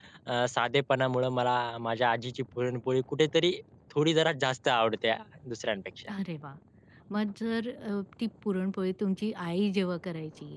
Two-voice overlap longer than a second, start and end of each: none

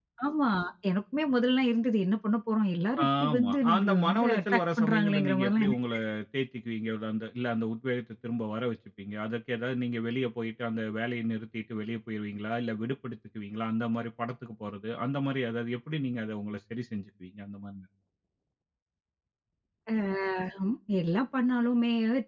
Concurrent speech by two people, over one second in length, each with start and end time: 3.0-5.8

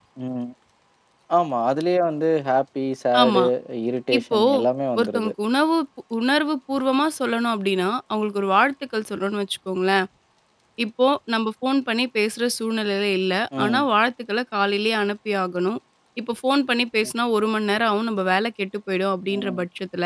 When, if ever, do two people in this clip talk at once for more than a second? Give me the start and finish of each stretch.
none

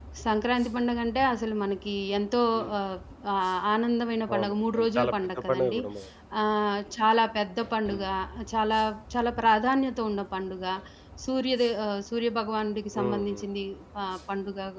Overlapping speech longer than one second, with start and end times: 4.3-5.8

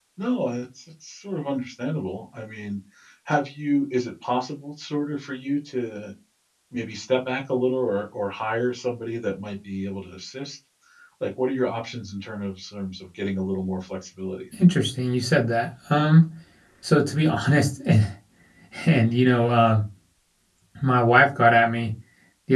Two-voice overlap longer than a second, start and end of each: none

